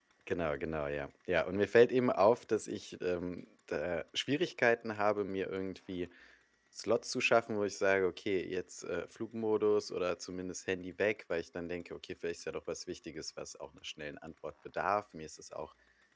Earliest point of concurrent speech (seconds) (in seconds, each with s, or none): none